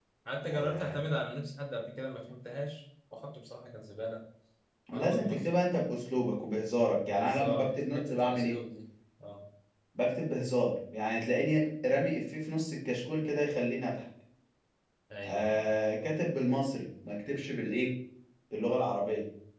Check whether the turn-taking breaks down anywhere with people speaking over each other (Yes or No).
Yes